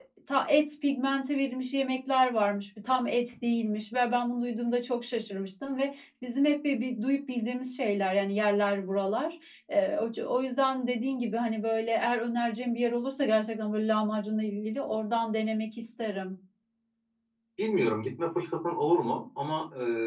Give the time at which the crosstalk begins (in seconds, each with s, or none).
none